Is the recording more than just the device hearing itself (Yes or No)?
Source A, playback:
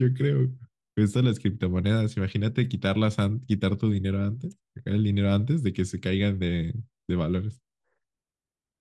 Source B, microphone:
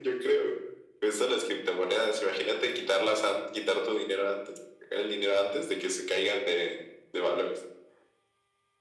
No